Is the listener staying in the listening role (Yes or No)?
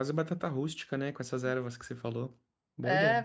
No